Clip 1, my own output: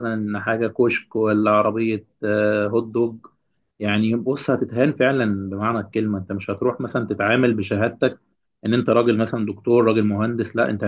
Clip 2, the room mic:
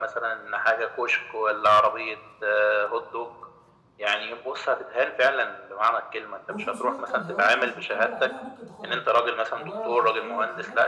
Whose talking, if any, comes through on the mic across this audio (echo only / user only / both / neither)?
both